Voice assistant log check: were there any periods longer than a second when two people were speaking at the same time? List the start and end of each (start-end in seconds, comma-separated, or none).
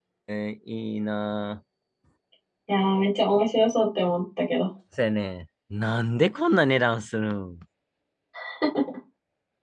none